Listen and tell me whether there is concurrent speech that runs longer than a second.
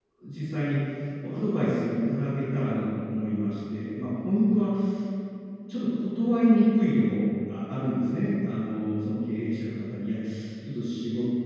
No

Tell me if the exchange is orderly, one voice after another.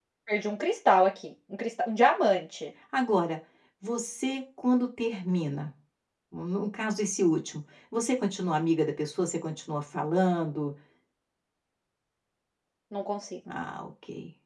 Yes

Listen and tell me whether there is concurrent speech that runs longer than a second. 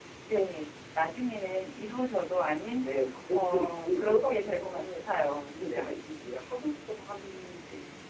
Yes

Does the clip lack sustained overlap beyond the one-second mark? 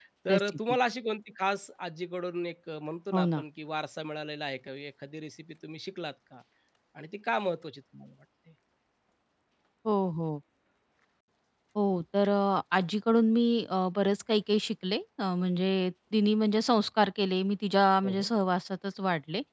Yes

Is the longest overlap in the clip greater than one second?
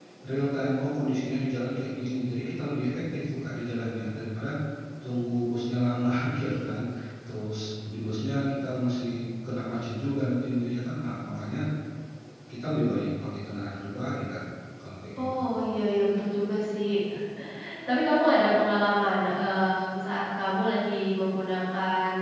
No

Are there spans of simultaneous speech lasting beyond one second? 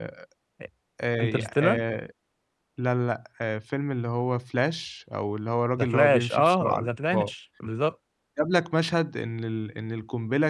Yes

